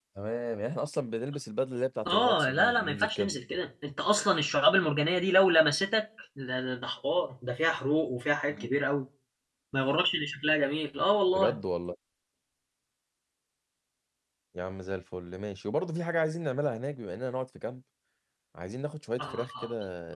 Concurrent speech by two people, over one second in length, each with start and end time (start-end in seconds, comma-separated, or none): 2.1-3.4